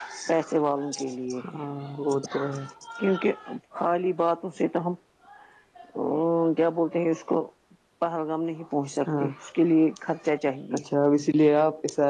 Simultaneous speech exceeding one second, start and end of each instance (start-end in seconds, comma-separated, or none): none